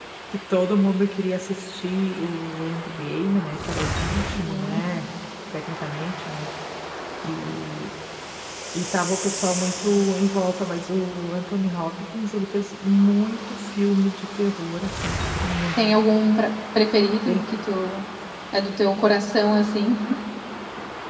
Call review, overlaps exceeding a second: none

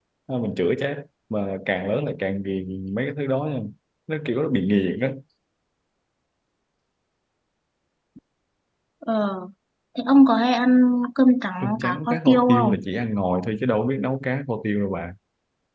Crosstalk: present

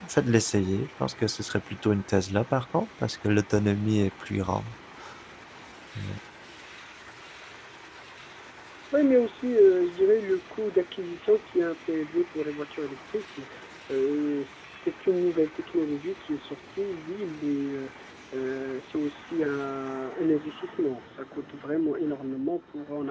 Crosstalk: none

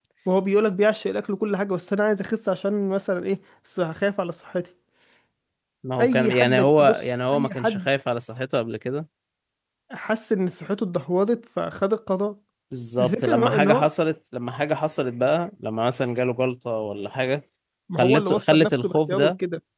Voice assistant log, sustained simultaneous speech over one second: present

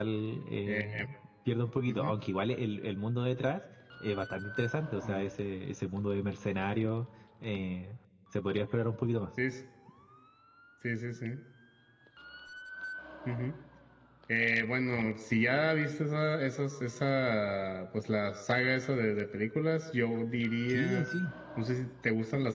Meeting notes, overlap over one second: none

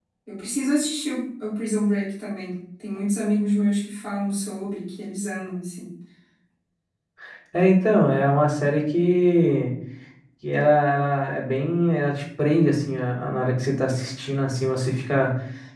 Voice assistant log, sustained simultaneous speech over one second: none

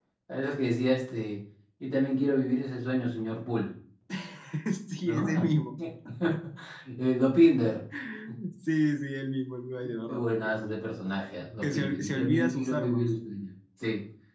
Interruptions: present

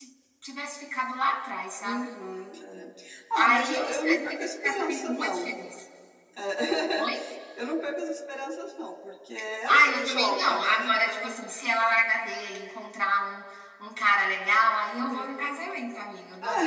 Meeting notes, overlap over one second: present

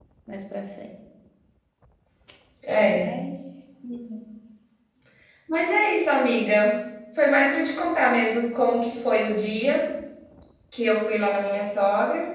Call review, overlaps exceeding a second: none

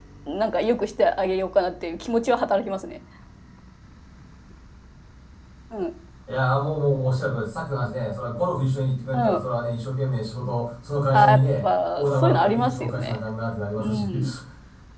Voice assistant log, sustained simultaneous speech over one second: present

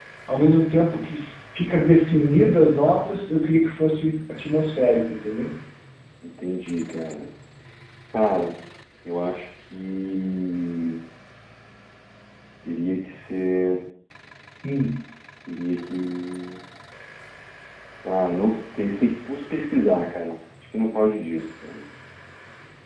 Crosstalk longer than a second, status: none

